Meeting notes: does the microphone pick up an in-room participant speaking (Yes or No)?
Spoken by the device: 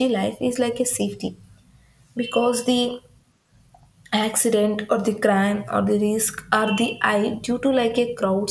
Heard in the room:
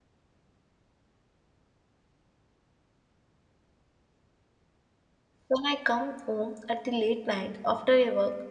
Yes